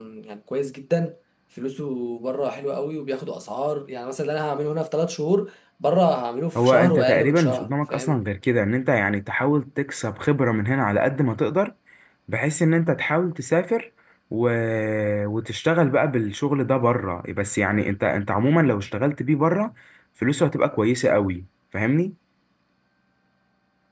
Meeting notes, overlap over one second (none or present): present